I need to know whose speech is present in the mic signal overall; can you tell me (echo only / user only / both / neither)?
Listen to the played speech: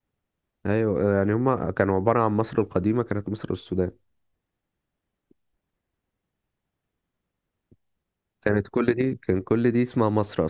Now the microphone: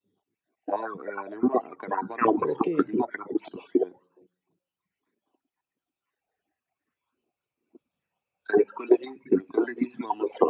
both